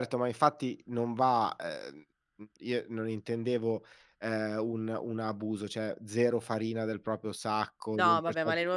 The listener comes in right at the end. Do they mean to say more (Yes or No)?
Yes